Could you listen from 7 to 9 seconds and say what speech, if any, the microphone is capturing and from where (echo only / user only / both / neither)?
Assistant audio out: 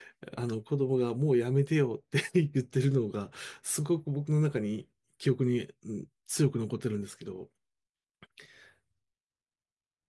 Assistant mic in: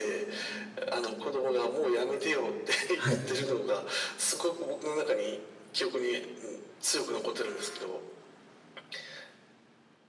echo only